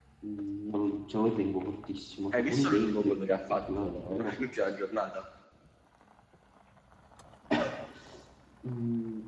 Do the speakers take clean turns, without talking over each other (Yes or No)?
No